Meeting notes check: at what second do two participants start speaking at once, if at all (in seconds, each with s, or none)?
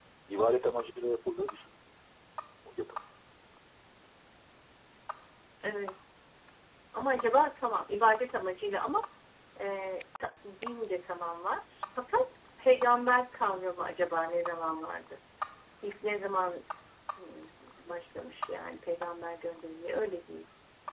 none